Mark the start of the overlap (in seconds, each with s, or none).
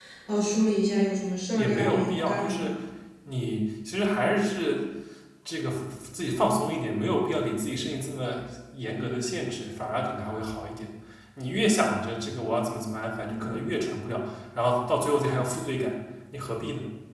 1.5 s